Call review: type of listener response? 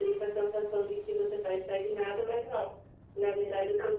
listening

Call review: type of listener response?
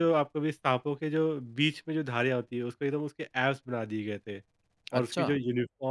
listening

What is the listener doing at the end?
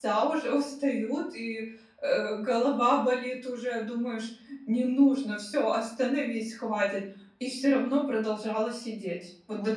taking over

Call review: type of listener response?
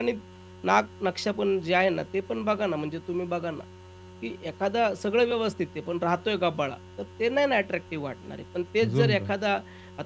listening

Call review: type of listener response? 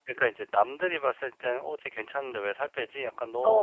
listening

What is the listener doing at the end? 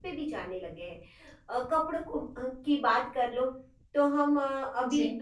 listening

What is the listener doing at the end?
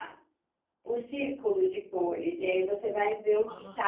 listening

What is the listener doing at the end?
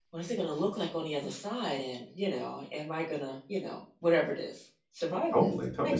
taking over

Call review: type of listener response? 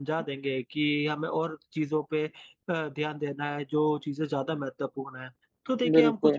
listening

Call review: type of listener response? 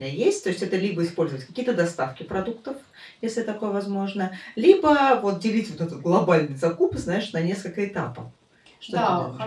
taking over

